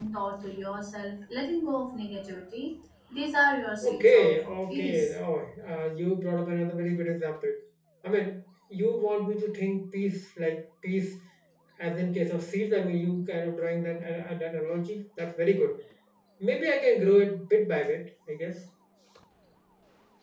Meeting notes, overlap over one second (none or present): present